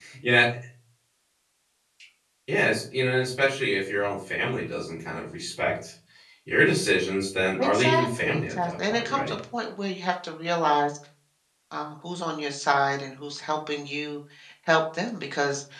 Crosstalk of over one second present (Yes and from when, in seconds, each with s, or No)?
Yes, from 7.6 s